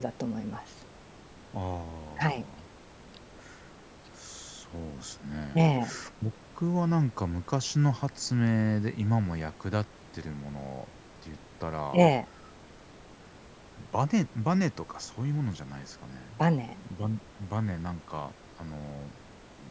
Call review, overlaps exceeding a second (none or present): none